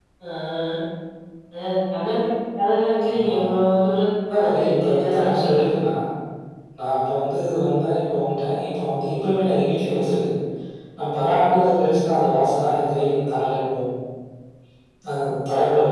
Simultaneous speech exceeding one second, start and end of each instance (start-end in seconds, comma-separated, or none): 4.3-5.6